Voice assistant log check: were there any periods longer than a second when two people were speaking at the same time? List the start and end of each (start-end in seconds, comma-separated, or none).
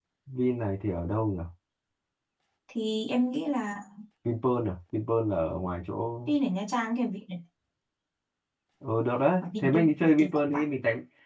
9.4-10.6